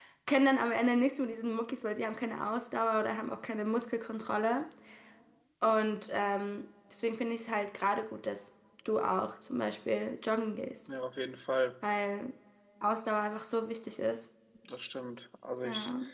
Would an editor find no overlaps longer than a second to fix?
Yes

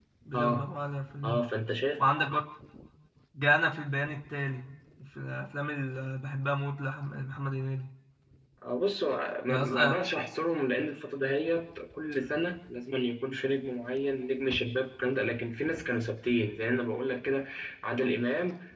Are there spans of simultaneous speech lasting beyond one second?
No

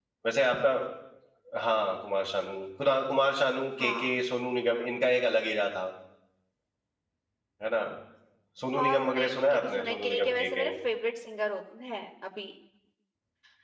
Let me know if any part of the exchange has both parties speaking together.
Yes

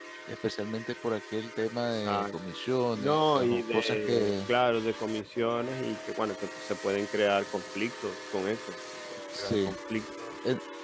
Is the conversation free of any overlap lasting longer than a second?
No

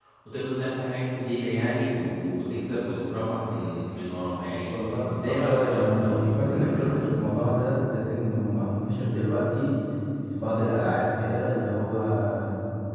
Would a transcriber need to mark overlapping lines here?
Yes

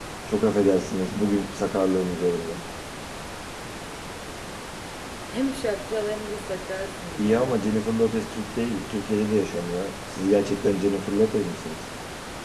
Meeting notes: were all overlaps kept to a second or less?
Yes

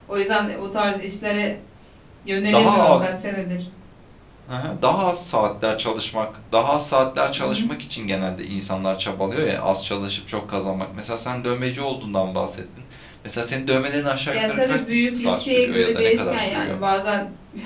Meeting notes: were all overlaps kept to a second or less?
No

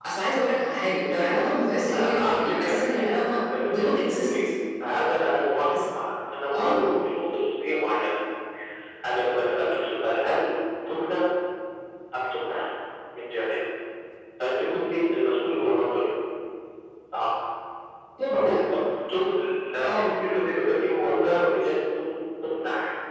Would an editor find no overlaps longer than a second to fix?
No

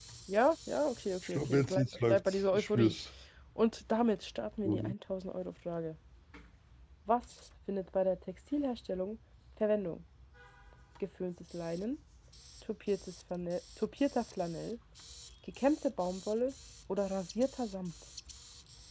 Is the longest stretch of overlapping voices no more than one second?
No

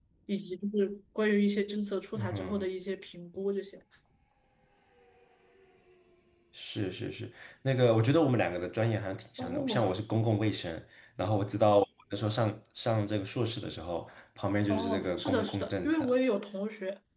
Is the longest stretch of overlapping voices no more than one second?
No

